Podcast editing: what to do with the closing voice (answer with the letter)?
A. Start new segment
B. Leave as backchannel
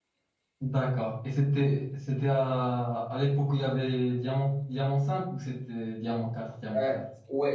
A